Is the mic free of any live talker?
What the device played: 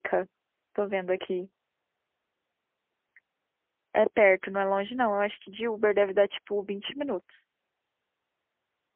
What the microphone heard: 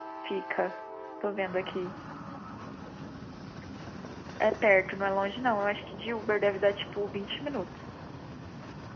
Yes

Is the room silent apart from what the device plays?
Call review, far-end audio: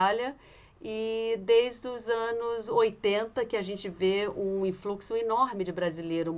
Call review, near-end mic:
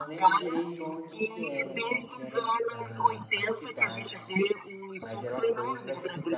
No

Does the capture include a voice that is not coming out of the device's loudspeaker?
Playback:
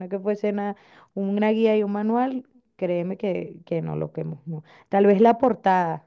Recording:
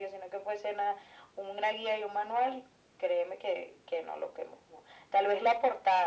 No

